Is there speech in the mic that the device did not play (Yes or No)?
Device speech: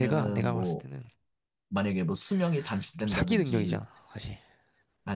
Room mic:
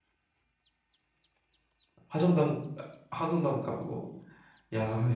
Yes